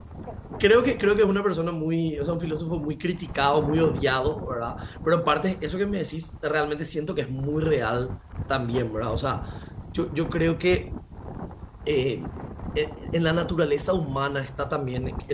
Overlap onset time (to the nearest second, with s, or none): none